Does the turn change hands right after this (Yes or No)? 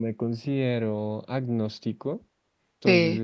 No